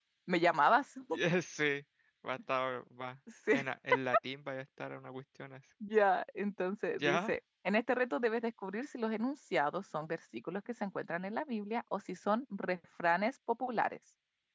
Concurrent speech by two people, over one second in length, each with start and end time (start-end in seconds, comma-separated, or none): none